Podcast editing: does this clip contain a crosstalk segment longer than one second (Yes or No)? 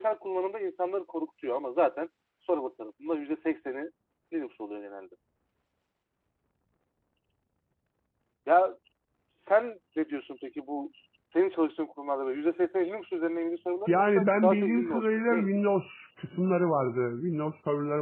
Yes